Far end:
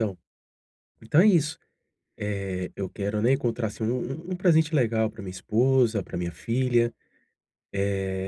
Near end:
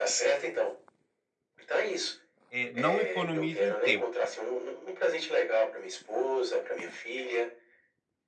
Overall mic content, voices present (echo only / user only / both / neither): both